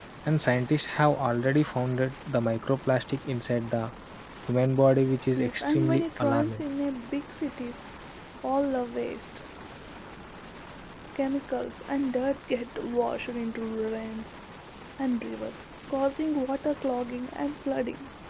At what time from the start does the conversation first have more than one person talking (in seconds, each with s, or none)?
5.3 s